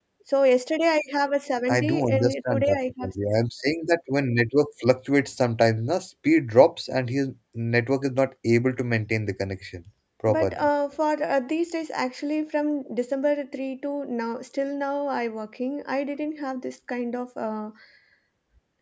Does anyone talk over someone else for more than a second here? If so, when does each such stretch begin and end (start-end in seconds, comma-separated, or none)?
1.7-3.1